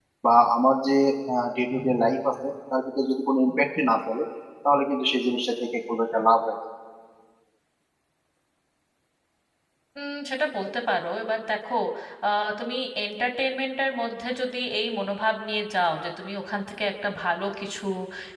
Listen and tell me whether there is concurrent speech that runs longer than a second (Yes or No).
No